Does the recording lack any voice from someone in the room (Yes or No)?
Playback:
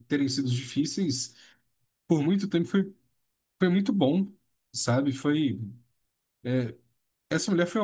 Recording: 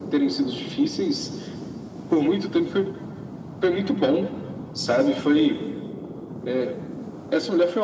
Yes